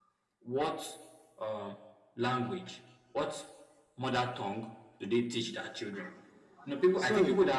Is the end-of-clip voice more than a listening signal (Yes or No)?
Yes